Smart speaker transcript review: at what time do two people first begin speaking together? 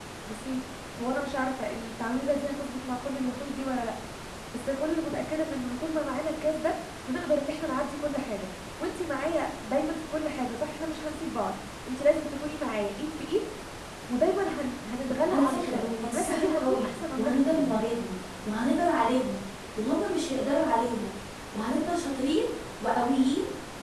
15.3 s

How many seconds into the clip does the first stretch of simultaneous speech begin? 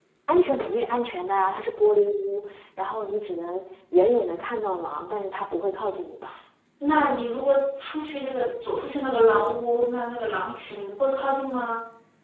none

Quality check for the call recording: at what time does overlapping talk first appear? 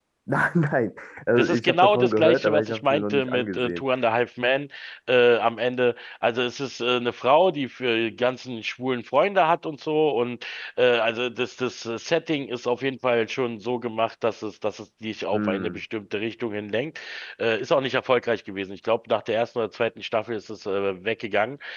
1.4 s

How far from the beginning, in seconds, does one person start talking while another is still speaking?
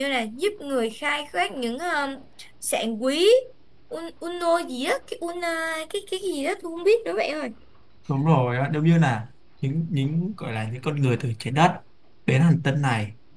none

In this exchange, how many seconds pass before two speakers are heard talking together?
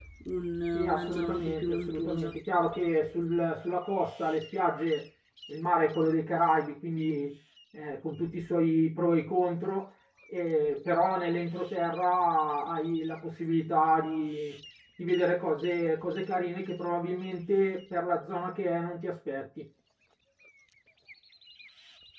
0.7 s

